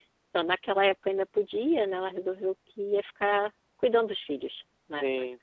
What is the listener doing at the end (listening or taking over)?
taking over